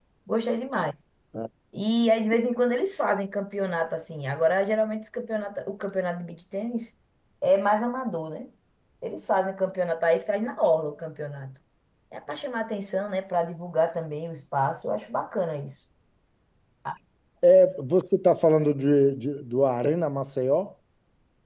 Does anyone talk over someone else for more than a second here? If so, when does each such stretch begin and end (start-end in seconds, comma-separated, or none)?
none